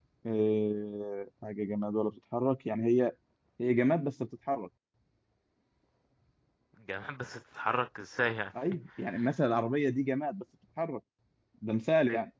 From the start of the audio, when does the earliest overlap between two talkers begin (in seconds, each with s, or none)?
none